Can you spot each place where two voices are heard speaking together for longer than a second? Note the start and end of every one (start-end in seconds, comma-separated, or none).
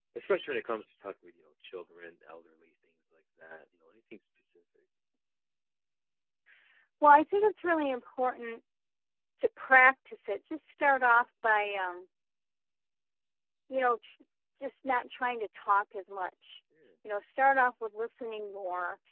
none